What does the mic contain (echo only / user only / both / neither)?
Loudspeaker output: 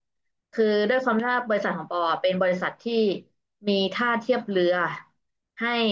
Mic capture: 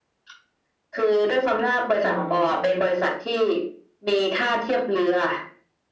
both